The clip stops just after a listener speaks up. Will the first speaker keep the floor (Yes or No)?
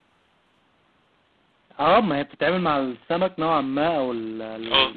Yes